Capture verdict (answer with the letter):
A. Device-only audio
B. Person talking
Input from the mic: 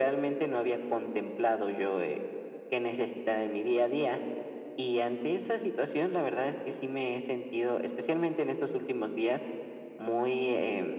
A